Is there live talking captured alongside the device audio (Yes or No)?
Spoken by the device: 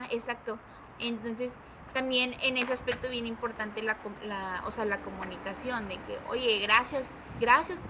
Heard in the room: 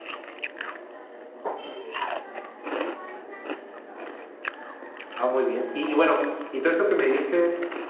Yes